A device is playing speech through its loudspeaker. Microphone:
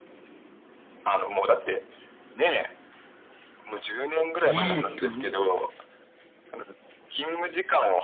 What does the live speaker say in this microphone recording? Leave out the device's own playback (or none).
え、ええ、ど